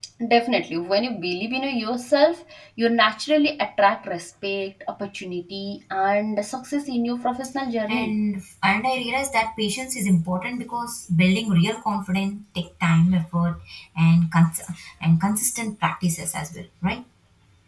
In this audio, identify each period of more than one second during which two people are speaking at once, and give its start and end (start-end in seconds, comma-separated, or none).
none